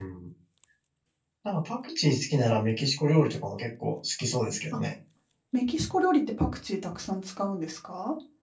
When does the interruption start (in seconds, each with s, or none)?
none